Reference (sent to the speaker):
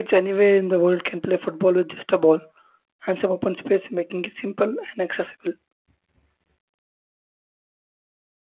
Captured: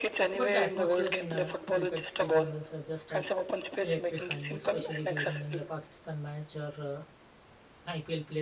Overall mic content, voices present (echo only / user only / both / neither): both